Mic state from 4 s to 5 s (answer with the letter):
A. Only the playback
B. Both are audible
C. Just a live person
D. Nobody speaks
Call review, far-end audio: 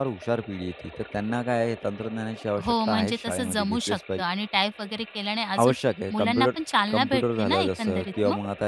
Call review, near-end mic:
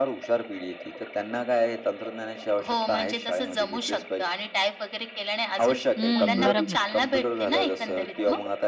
A